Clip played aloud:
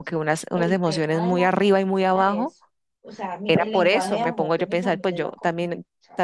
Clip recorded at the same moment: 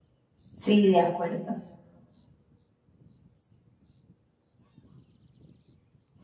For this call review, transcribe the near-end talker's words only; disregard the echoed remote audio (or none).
Sí, de acuerdo,